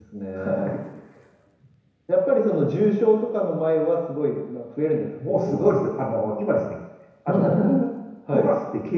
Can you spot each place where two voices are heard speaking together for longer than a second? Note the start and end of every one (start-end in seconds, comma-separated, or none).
none